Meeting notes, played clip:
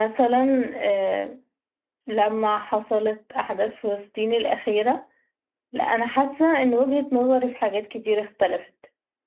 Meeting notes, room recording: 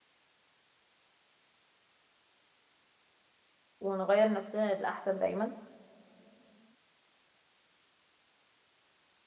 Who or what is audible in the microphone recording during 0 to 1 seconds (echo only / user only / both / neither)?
neither